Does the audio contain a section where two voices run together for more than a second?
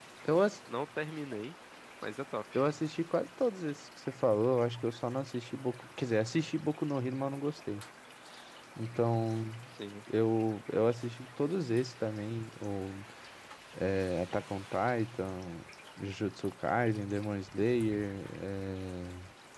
No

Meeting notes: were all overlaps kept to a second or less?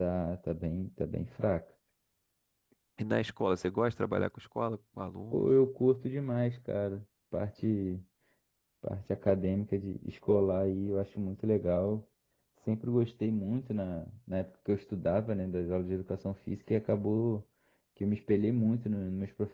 Yes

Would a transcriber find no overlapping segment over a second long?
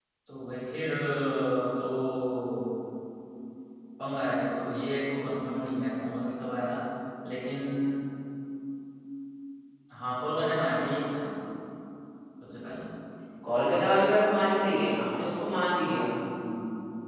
Yes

